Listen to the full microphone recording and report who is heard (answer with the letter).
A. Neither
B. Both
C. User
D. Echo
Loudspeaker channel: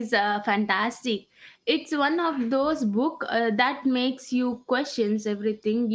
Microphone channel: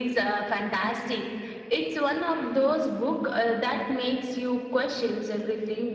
D